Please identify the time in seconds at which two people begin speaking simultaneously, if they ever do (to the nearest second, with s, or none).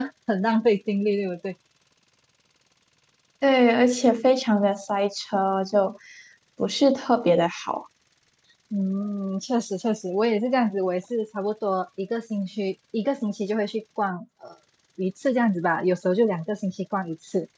none